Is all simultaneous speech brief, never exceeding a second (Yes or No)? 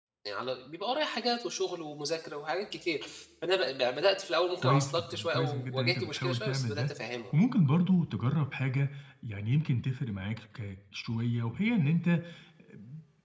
No